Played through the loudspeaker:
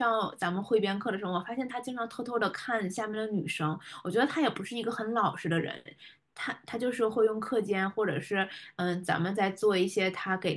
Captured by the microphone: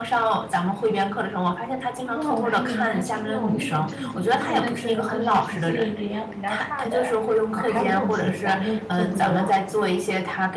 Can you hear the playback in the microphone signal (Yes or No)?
Yes